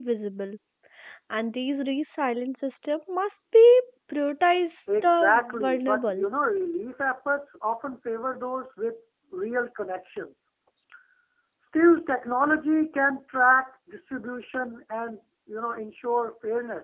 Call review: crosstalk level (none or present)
present